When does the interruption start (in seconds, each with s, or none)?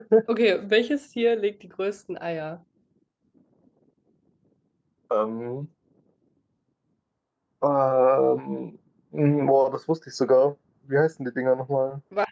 none